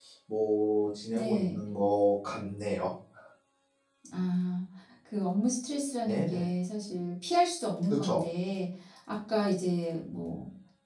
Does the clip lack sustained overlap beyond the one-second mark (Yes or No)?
Yes